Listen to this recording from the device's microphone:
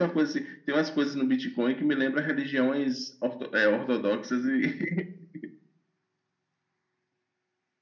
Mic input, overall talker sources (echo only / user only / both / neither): echo only